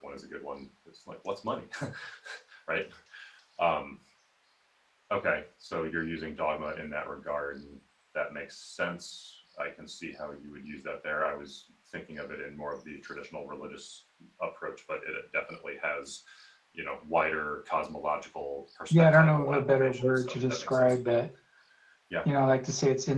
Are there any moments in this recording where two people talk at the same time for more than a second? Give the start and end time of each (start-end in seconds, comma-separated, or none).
18.9-20.9